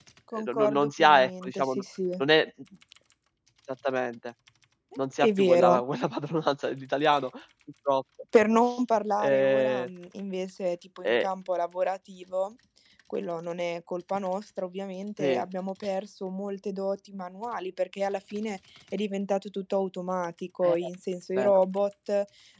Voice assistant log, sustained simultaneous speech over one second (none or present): present